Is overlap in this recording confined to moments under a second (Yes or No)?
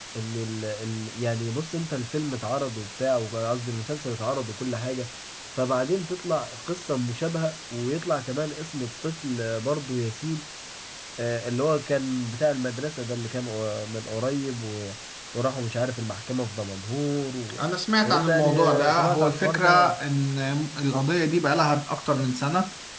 No